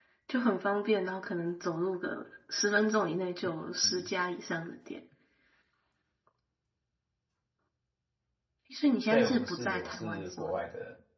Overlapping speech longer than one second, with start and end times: 9.1-10.5

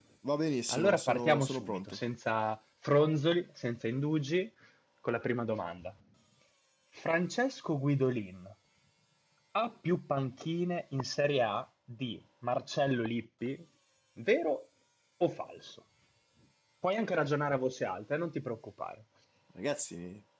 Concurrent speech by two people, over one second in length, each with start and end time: 0.7-2.0

